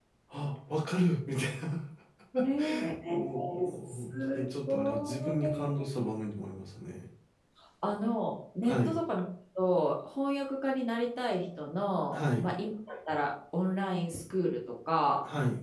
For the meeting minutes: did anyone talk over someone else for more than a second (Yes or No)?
Yes